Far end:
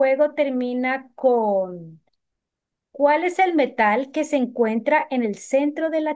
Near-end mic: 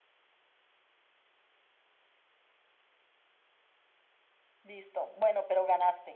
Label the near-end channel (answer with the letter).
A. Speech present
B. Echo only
A